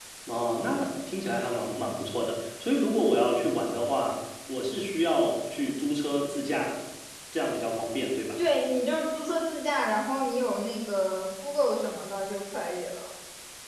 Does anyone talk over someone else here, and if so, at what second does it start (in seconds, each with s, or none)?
none